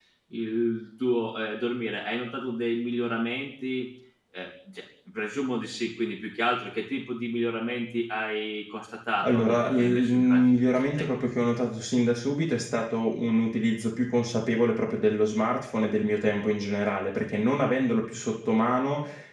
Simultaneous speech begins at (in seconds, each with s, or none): 9.2 s